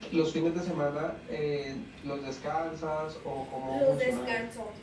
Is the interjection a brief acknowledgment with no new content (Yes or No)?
No